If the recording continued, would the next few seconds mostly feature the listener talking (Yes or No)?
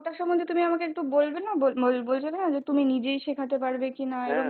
Yes